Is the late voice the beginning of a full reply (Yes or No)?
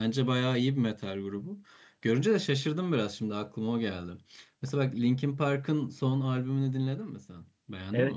Yes